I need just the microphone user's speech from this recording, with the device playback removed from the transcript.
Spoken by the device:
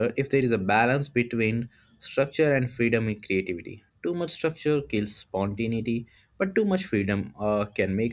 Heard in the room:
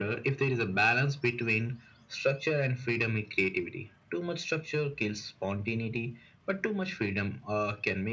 none

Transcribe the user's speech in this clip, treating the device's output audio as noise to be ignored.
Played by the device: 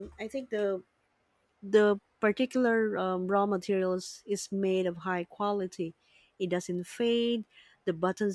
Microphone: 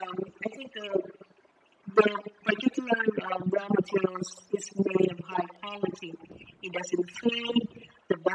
none

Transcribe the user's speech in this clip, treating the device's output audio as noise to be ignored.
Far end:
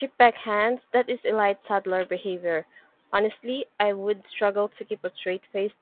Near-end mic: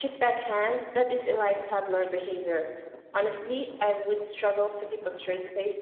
none

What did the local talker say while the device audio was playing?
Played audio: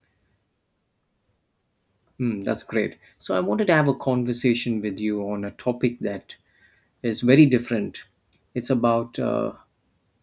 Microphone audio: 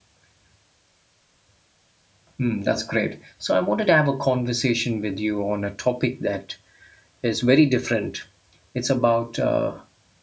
none

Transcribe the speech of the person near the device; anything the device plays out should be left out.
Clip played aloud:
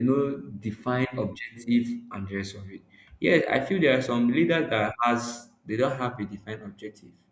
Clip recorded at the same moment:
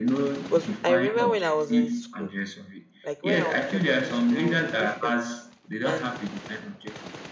because I remember when I was in school, like when I was in secondary school, I was a prefect. And

